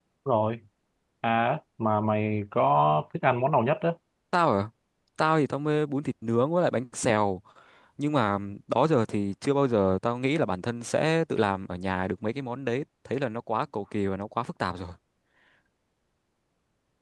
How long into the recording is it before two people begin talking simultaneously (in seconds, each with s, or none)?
none